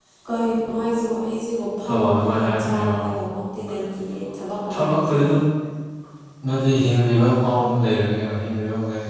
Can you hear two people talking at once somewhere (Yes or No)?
Yes